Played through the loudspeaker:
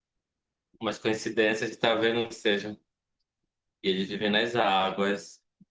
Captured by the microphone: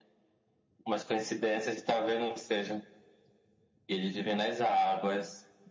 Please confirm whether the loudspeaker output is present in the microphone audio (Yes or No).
Yes